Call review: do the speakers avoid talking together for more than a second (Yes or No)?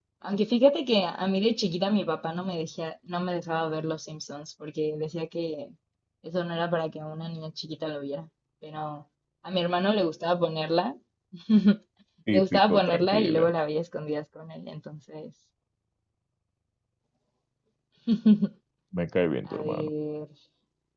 No